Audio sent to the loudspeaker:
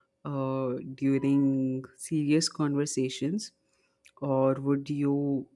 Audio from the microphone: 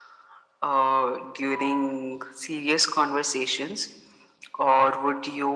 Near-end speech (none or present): none